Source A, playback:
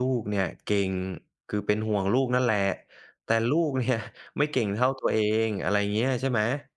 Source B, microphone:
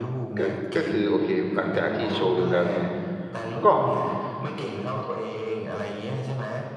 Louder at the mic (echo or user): user